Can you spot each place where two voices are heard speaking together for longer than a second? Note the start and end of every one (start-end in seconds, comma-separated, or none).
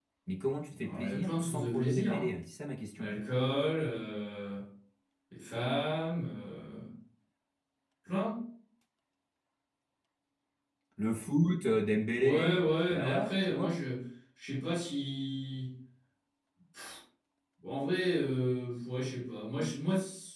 0.8-2.3, 12.2-13.8